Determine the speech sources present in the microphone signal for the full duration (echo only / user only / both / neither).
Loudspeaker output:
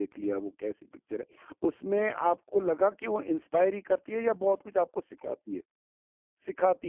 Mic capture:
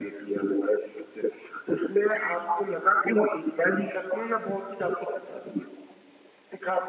echo only